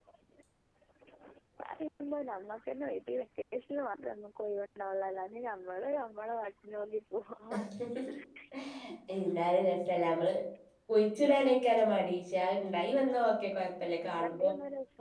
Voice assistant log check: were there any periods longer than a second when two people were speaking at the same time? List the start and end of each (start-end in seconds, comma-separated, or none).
none